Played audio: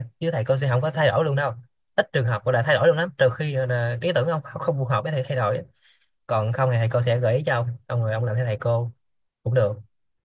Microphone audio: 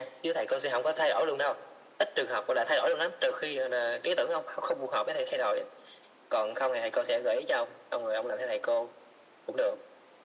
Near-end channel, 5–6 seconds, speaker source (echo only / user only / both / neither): echo only